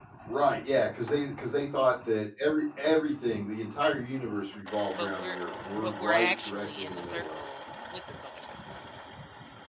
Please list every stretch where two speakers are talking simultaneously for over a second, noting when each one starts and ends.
5.8-7.5

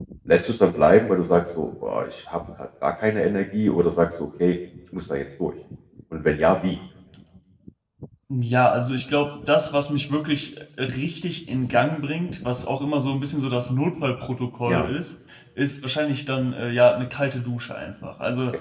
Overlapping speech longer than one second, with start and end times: none

